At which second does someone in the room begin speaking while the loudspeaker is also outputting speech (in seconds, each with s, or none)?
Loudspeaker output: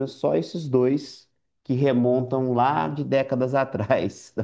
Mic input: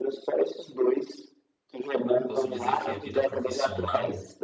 2.0 s